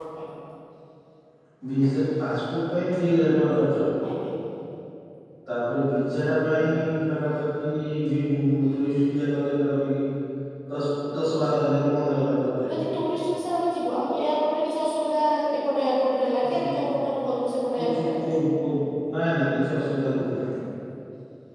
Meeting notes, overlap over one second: none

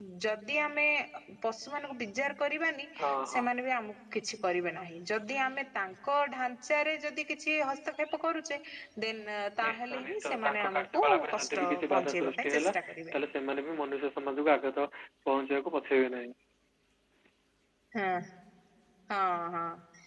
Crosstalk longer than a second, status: present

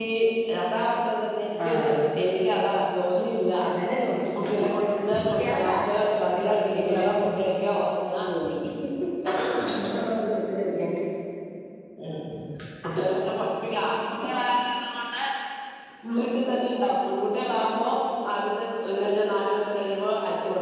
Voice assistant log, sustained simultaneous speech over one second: present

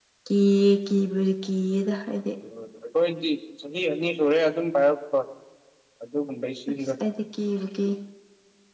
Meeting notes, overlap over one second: none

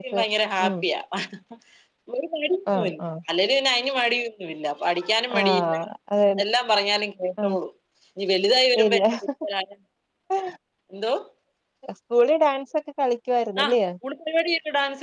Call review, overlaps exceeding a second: none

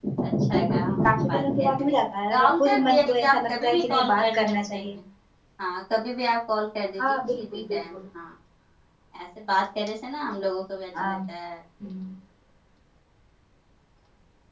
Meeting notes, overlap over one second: present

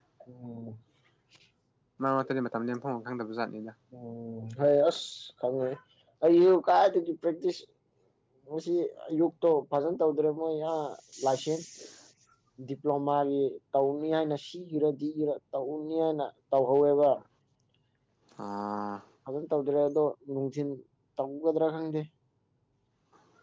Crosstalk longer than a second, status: none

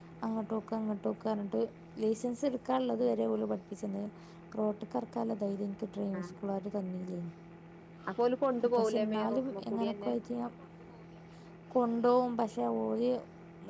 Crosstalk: present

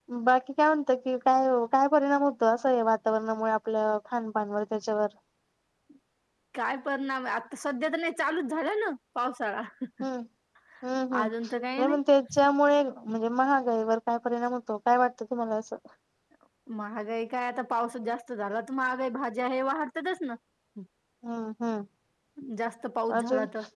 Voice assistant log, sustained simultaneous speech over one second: none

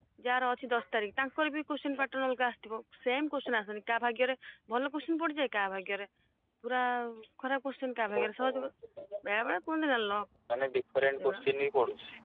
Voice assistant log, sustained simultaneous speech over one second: none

